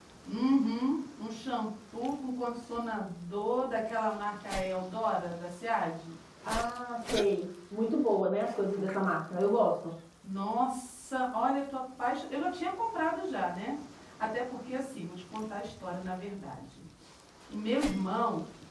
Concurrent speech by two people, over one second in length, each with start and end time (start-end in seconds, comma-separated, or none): none